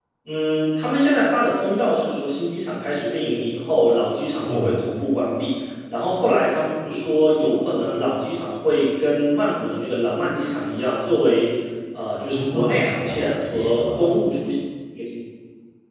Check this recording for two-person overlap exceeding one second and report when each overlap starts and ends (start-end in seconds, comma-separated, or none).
12.5-14.2